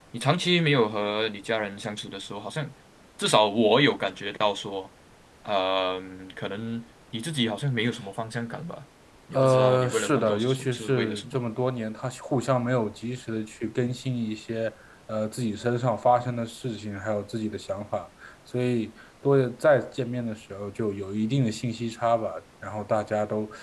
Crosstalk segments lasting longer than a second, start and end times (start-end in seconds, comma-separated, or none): 9.3-11.4